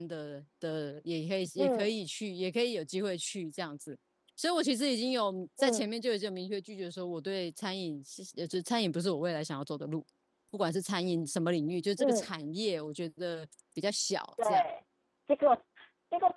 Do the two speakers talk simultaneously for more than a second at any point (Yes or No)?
No